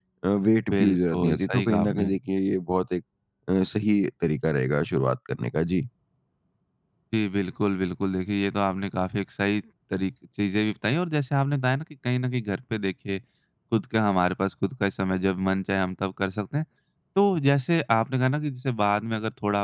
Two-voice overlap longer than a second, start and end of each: 0.7-2.1

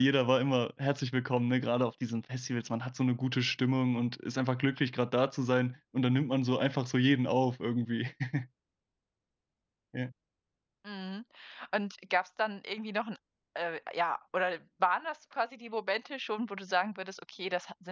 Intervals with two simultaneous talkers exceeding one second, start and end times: none

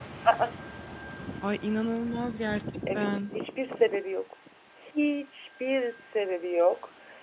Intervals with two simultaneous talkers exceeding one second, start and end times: none

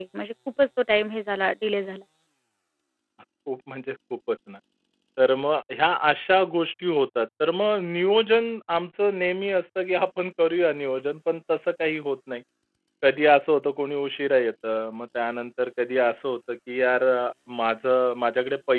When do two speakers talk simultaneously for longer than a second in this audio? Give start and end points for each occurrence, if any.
none

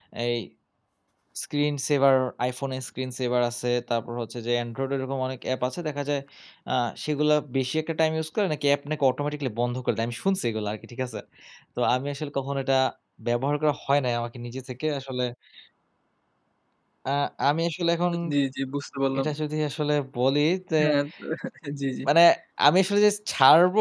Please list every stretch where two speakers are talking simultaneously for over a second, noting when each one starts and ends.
none

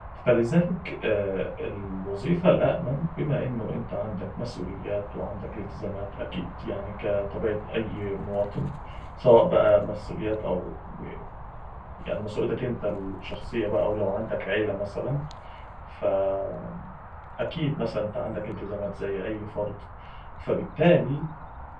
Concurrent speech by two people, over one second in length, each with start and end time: none

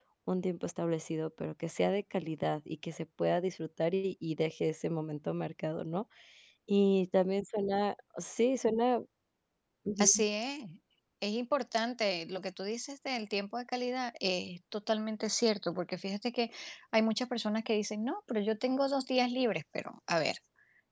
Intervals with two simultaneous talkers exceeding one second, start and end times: none

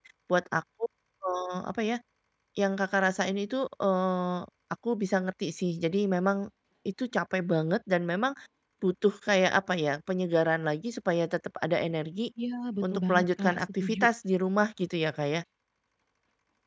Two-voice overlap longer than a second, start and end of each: 12.8-14.1

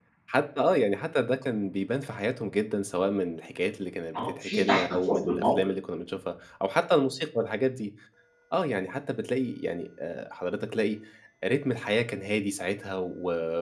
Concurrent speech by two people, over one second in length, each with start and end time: 4.2-5.5

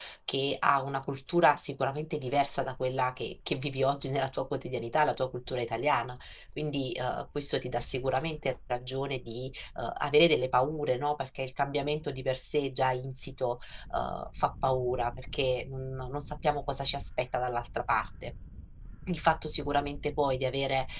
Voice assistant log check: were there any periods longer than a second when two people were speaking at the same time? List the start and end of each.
none

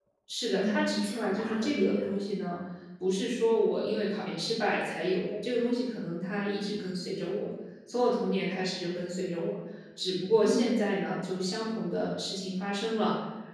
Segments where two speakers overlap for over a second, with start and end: 0.6-2.1

